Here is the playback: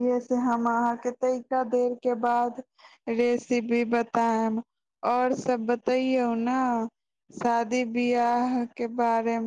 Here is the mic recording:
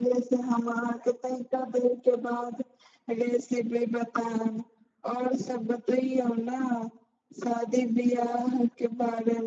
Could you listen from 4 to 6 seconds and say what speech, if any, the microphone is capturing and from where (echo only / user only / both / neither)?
echo only